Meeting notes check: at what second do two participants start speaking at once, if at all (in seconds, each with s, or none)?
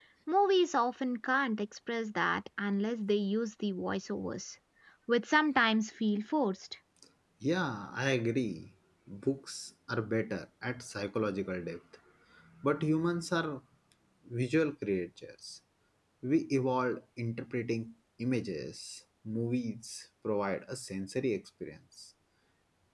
none